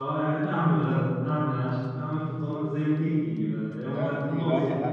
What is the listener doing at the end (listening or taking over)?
taking over